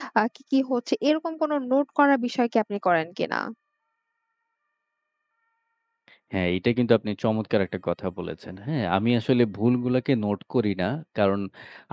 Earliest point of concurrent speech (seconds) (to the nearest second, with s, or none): none